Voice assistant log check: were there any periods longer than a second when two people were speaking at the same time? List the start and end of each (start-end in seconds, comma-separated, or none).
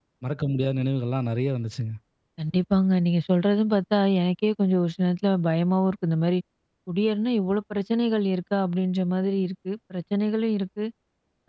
none